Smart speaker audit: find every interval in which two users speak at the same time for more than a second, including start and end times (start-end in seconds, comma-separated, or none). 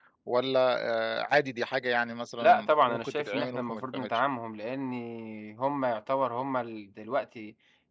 2.4-4.2